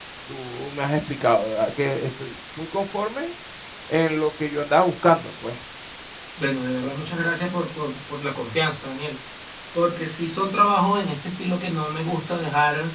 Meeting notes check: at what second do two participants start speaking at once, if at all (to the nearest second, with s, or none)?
none